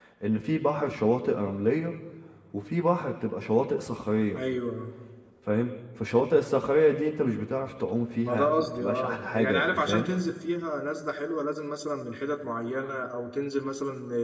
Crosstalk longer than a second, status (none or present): present